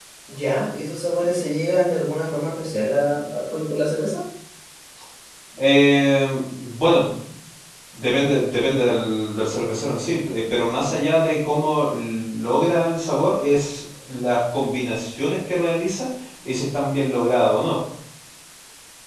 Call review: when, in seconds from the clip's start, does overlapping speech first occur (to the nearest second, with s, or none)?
none